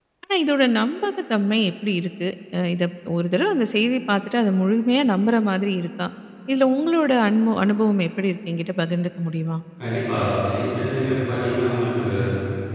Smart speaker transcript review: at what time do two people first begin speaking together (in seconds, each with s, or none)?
none